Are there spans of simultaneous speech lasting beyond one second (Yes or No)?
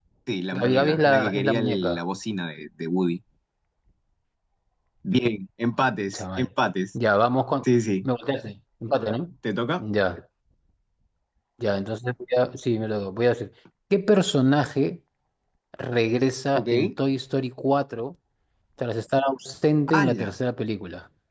Yes